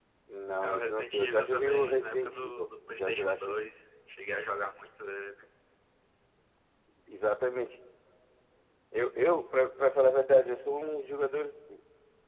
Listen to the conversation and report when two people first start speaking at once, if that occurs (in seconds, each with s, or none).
0.6 s